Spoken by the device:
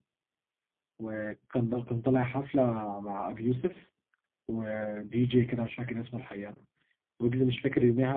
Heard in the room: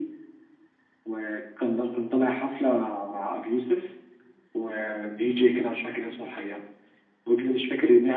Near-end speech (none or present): none